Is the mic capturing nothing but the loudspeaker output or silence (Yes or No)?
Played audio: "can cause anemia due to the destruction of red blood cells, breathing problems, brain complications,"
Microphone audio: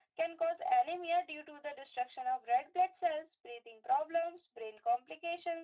Yes